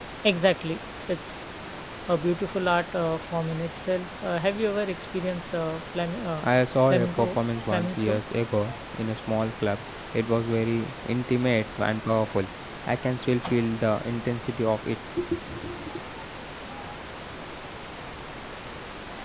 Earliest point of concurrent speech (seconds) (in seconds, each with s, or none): 6.9 s